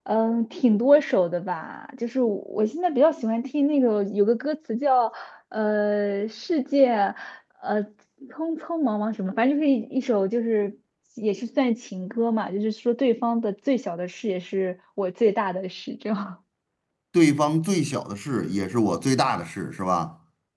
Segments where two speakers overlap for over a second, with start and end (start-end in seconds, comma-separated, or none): none